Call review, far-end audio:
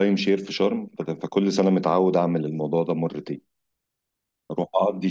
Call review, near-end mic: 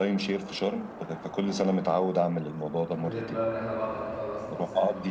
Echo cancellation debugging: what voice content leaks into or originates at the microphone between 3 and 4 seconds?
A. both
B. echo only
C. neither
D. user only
A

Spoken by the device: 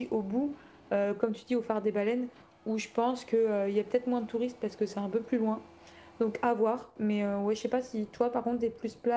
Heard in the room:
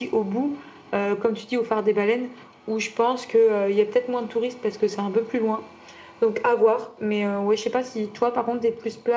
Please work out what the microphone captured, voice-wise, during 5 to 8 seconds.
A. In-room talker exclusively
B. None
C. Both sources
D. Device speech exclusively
D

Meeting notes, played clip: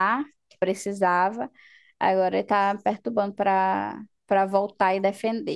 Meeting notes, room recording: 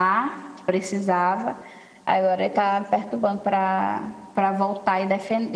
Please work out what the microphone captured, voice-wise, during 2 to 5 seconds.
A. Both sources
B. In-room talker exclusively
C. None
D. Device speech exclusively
D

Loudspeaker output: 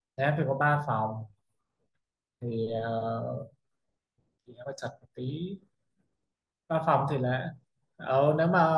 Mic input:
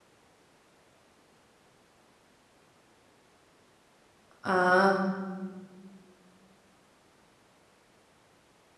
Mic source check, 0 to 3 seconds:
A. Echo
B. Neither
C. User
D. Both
B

